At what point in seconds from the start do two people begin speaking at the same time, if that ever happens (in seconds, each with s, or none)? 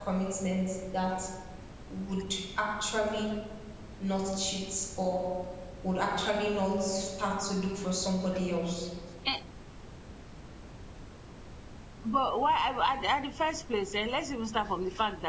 none